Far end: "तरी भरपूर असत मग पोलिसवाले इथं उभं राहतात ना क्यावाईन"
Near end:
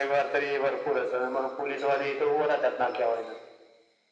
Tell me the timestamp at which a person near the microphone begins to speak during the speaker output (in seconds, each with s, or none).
none